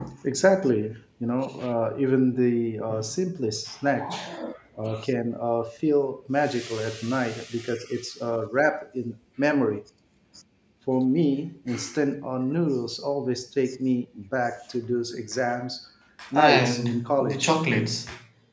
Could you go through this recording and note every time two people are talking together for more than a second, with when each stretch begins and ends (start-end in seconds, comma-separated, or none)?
16.3-17.6